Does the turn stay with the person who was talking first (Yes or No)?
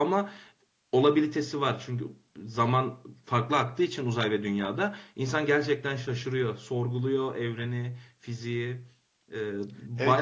No